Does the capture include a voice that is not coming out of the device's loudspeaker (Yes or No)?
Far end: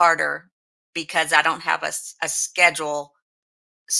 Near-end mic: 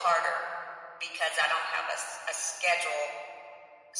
No